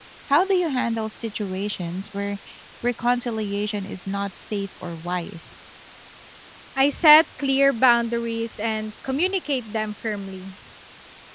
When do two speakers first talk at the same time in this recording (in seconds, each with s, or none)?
none